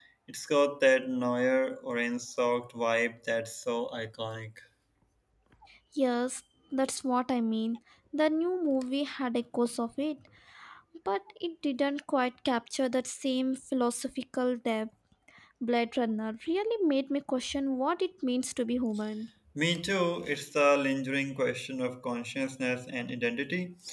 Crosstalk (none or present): none